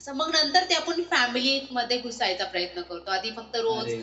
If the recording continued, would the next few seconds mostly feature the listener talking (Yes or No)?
No